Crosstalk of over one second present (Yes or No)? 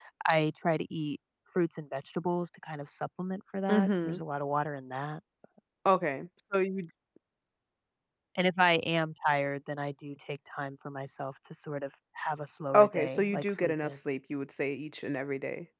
Yes